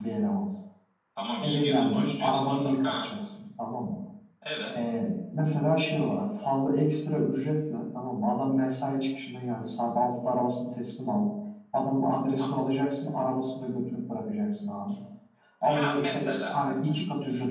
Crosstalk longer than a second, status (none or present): present